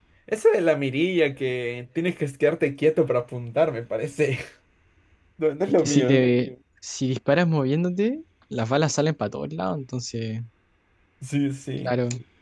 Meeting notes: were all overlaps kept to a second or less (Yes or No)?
Yes